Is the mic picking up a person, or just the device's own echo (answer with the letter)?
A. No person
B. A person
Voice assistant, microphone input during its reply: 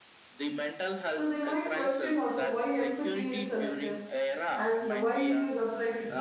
B